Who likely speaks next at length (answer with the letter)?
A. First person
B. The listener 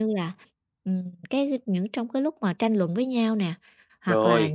A